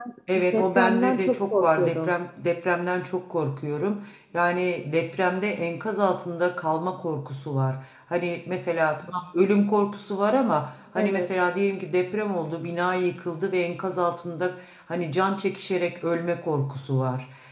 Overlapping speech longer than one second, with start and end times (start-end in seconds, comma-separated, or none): 0.5-2.1